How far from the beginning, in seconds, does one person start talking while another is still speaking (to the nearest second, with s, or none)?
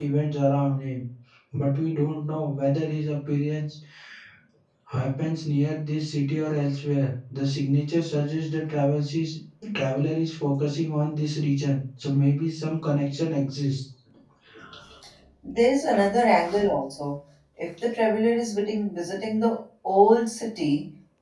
none